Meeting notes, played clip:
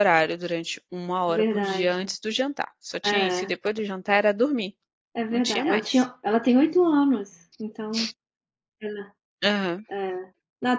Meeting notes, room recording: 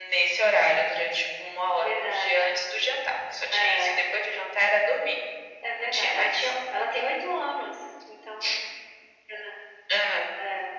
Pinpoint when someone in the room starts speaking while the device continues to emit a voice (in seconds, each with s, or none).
none